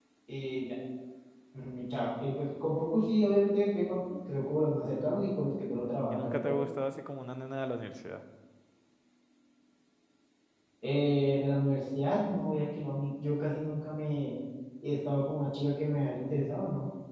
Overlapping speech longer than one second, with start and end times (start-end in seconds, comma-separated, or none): none